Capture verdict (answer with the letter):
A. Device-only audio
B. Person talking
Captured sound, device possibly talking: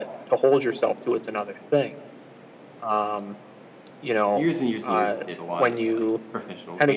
B